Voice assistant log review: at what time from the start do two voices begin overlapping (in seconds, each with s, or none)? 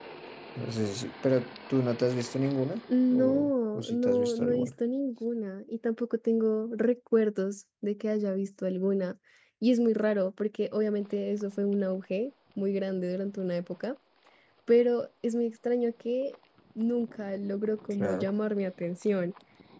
3.1 s